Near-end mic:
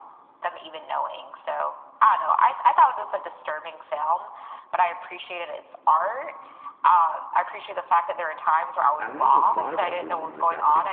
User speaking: Yes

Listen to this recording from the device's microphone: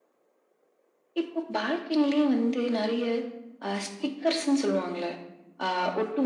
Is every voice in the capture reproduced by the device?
Yes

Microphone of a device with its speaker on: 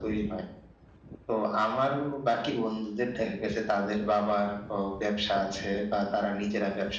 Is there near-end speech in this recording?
No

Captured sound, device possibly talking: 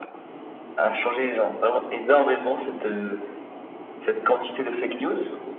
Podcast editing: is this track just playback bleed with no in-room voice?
Yes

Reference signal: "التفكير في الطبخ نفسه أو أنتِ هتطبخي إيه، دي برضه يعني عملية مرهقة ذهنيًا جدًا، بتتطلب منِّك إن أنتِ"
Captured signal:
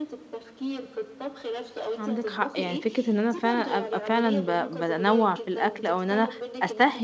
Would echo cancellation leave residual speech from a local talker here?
Yes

